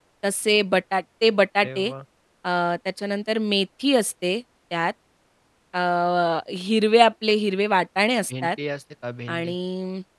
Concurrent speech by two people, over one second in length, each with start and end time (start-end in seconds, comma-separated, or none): none